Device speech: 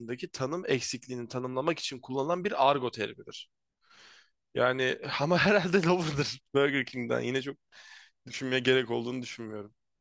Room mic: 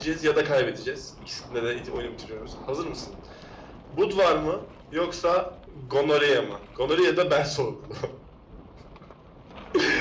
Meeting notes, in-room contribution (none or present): present